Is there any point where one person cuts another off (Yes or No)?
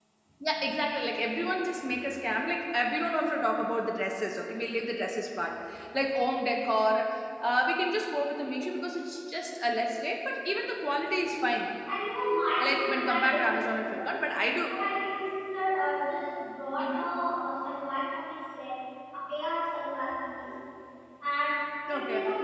Yes